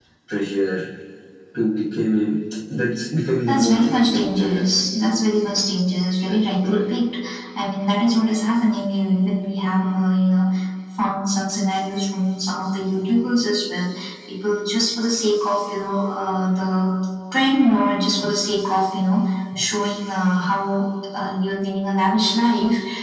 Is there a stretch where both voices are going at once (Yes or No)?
Yes